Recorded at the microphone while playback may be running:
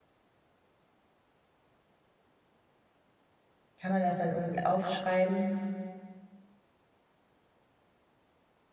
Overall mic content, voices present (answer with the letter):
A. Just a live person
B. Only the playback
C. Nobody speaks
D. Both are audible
A